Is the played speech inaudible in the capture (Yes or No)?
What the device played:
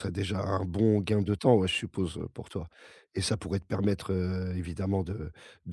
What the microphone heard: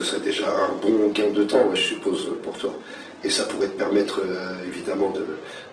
No